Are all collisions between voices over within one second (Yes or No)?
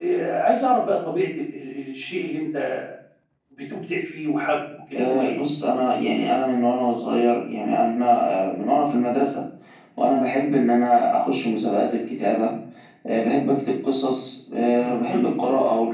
Yes